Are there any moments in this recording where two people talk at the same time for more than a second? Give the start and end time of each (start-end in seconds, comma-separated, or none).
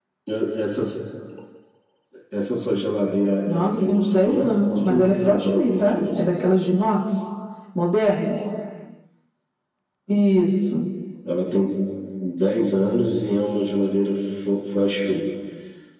3.5-6.3